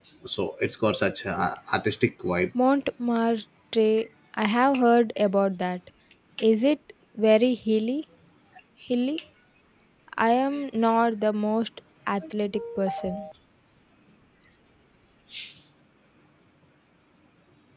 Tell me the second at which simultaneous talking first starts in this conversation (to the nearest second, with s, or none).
none